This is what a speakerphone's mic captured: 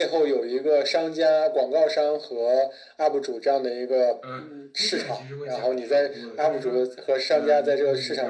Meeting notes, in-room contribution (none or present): present